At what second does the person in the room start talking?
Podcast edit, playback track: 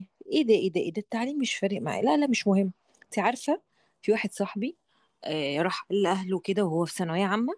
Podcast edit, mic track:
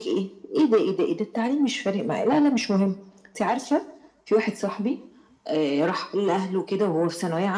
none

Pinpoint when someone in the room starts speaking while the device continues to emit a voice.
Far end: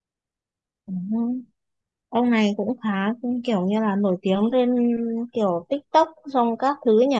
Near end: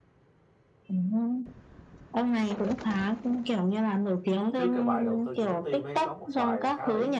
4.5 s

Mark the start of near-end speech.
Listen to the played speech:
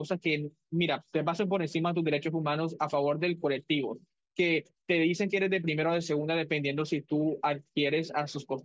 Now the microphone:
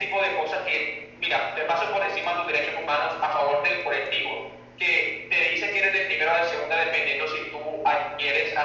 none

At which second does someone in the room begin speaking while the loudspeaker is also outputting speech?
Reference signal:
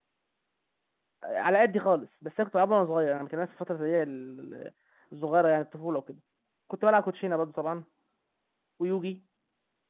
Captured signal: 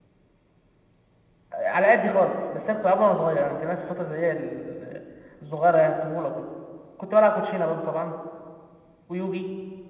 none

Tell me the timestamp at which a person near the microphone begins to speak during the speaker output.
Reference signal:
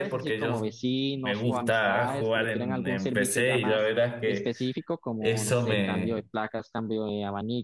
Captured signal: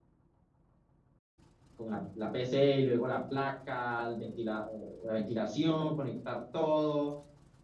1.7 s

